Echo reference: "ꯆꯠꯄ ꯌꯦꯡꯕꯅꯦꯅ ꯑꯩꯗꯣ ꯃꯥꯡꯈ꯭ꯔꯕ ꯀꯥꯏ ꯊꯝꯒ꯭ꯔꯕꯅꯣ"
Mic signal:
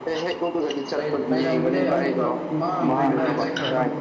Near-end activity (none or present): present